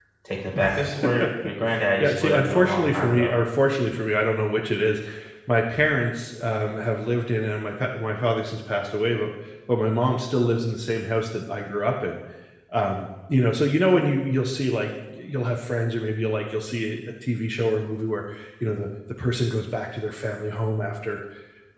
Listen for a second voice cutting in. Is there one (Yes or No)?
Yes